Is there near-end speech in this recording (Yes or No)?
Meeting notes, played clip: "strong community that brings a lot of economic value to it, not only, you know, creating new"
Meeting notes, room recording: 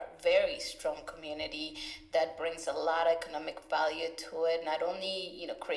No